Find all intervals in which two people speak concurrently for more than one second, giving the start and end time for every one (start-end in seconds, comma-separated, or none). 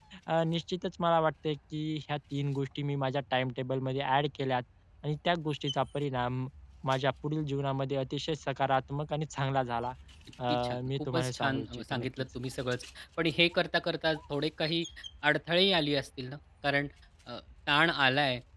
10.5-12.2